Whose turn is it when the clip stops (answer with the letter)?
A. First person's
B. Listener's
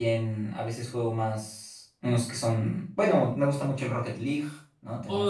B